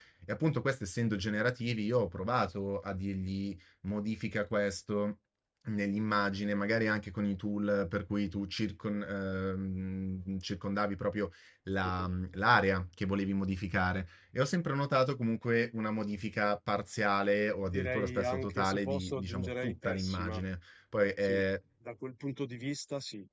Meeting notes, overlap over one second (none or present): present